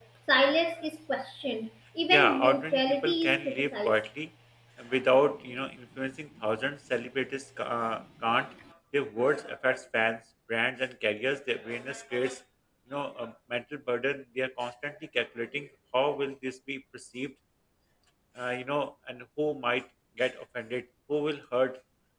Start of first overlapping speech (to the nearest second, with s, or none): 2 s